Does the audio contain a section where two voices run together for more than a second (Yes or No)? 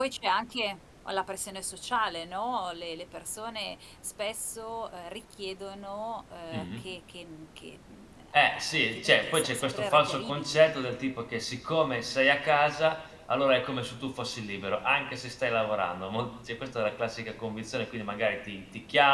Yes